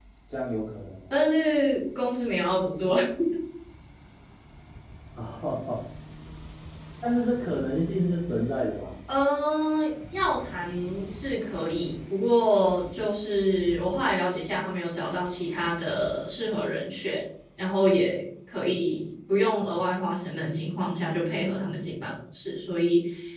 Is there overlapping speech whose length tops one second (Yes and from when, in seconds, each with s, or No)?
No